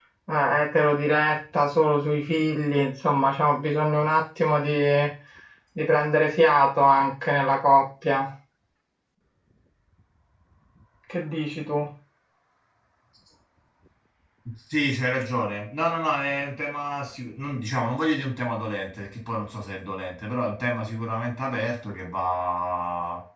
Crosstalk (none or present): none